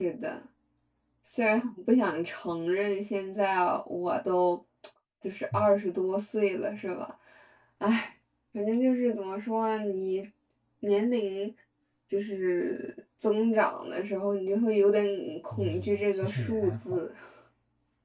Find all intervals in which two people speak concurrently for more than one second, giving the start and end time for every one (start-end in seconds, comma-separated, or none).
15.5-17.0